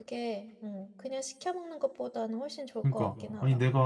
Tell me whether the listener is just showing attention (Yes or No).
No